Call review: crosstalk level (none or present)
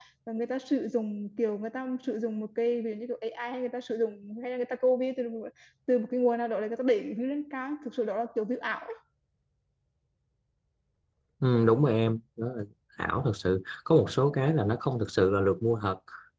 none